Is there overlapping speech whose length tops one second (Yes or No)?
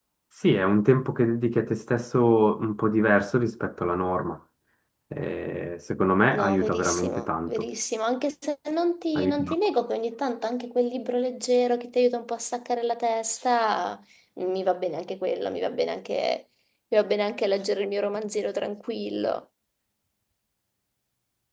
Yes